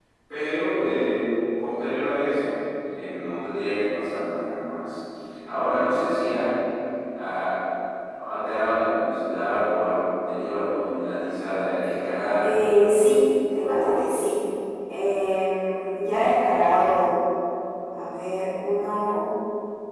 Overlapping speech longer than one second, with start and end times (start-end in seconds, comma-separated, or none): none